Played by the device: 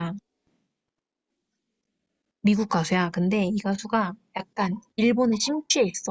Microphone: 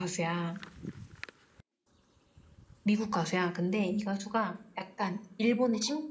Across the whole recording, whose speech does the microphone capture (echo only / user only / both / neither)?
echo only